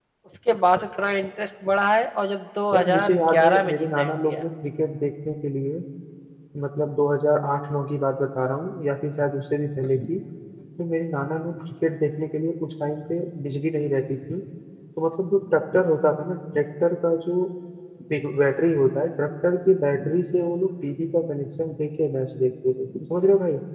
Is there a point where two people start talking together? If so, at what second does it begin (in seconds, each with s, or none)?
2.7 s